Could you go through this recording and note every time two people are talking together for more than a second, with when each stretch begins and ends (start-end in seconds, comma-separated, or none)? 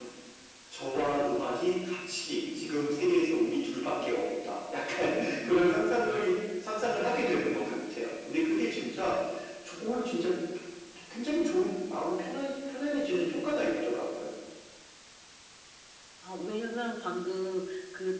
none